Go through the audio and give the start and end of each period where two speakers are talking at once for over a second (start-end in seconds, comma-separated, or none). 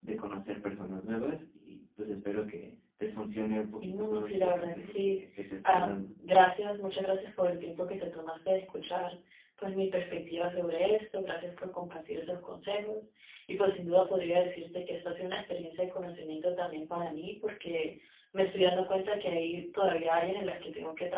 3.8-5.2